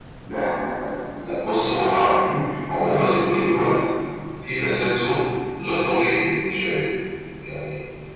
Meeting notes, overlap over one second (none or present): present